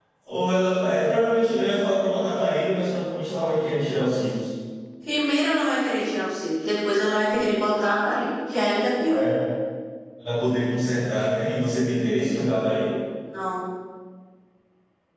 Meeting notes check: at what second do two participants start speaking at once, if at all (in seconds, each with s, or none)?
none